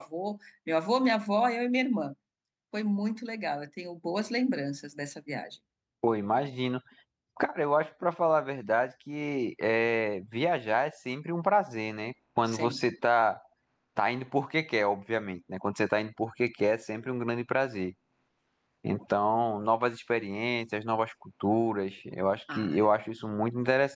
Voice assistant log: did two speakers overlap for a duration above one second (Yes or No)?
No